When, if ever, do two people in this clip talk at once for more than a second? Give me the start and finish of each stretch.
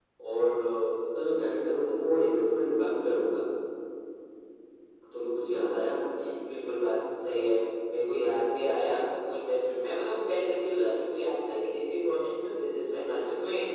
none

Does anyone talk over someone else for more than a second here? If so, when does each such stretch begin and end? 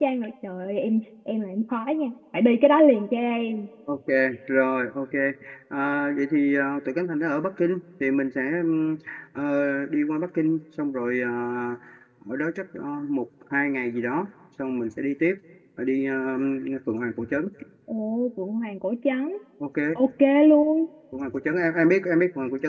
none

